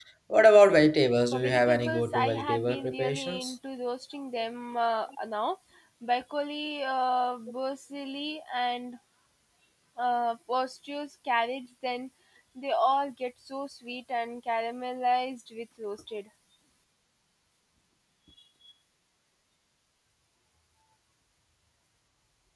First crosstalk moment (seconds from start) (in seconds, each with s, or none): 1.3 s